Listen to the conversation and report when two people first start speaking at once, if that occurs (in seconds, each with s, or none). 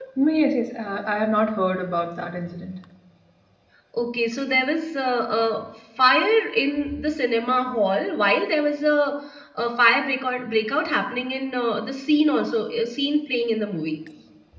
none